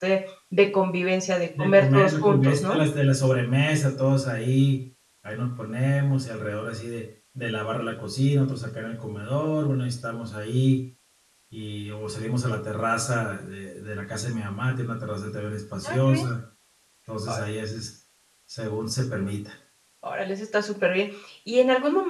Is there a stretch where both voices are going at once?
Yes, from 1.6 s

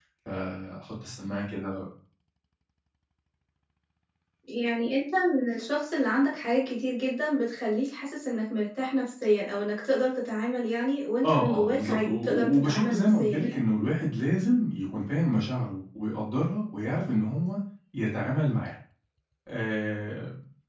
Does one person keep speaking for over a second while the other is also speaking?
Yes, from 11.2 s

